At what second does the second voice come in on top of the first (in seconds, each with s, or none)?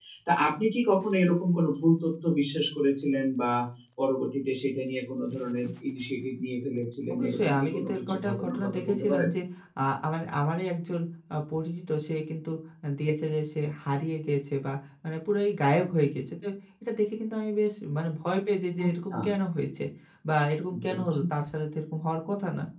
7.1 s